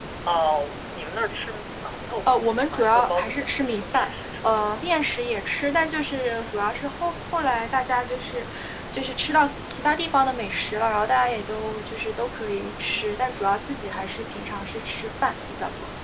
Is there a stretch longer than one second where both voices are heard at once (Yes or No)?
Yes